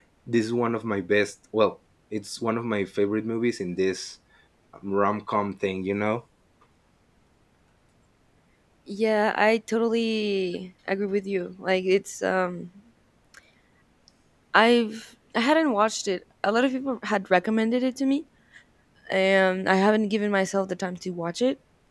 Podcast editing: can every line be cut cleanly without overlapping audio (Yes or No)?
Yes